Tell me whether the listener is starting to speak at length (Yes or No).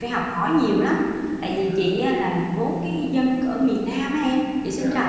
No